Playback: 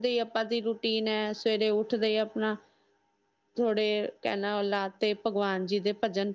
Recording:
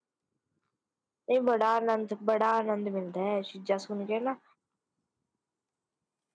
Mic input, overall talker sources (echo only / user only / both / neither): user only